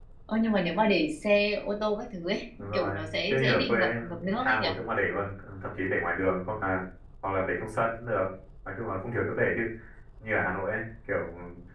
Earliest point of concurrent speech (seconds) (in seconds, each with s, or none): 2.6 s